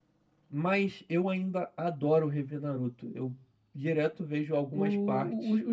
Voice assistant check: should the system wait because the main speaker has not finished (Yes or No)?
No